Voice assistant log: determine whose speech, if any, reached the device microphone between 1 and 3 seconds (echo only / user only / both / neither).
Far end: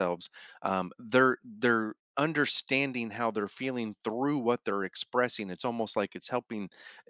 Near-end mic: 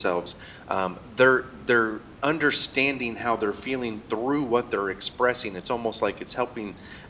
echo only